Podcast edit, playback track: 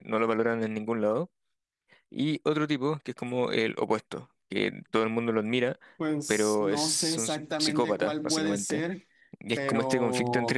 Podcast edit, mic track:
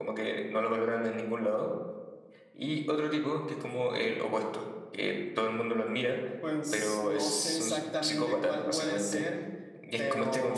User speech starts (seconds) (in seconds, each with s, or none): none